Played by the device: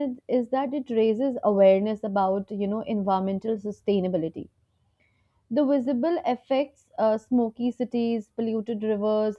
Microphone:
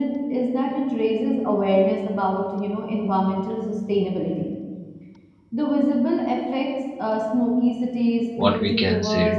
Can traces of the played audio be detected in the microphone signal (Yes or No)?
Yes